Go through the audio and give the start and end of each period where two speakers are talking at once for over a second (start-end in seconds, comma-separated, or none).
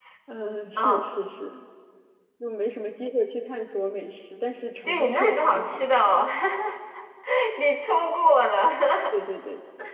4.8-6.2